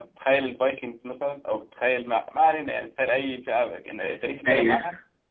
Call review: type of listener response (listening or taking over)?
listening